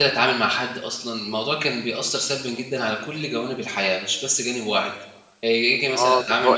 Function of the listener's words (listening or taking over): taking over